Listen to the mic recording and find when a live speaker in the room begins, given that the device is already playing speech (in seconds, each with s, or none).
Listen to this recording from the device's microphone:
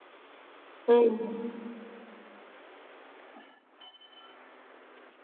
0.9 s